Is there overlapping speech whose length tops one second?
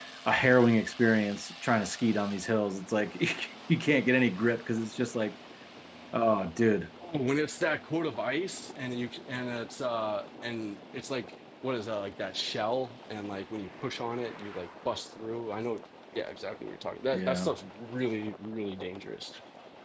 No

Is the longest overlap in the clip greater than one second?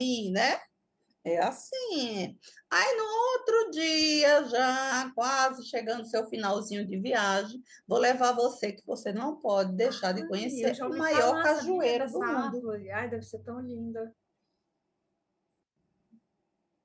Yes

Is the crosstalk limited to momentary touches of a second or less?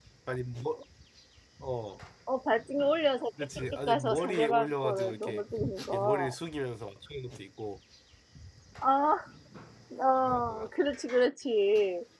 No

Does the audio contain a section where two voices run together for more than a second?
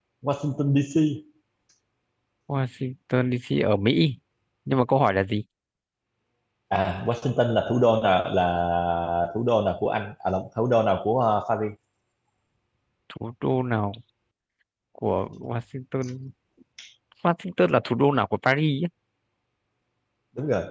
No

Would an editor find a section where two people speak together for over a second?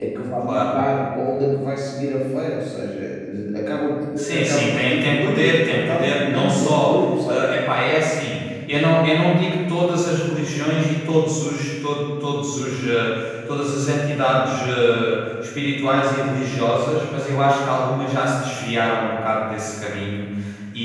Yes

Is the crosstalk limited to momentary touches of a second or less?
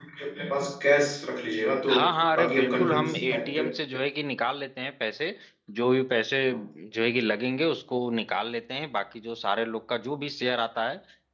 No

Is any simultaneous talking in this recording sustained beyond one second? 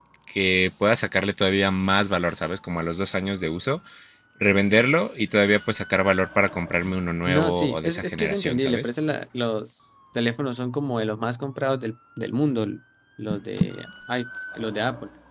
Yes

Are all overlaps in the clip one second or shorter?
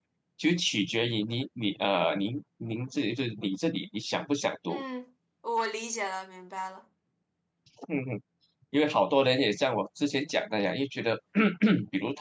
Yes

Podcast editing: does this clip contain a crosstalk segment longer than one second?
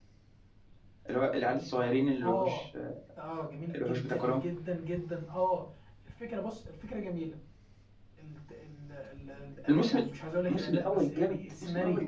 Yes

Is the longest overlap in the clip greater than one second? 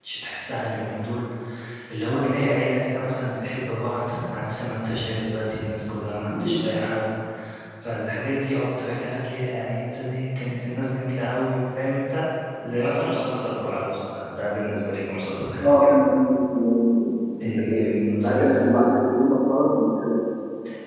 Yes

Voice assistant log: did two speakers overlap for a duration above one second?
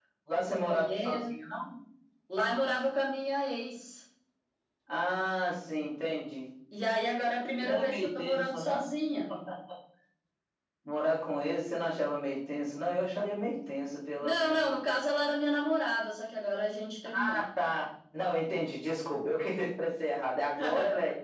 Yes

